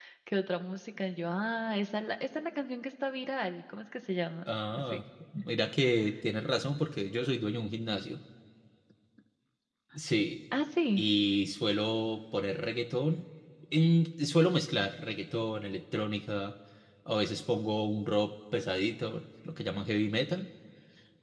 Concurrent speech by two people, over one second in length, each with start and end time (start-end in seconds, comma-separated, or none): none